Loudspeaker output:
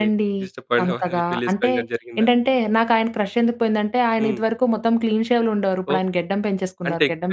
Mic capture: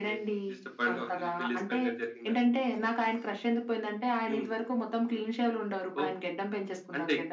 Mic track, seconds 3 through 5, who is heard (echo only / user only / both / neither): echo only